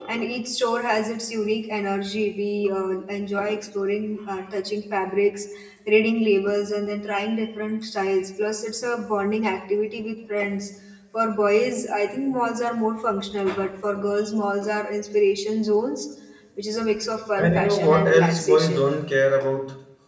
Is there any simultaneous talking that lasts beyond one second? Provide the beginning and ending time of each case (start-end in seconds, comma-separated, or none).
17.4-18.8